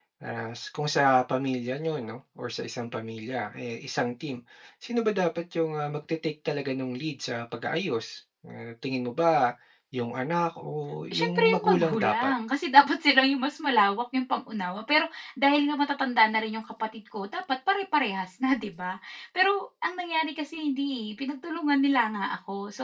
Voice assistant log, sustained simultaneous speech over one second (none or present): present